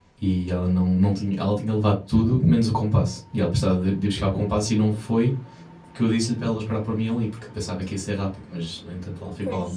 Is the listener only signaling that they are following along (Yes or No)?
Yes